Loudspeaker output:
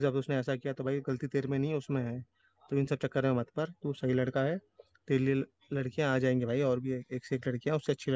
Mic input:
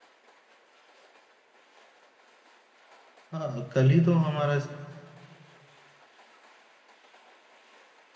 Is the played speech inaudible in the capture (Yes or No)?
Yes